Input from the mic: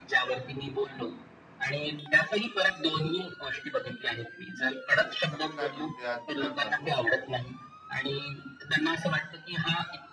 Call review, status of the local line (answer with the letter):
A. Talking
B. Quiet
A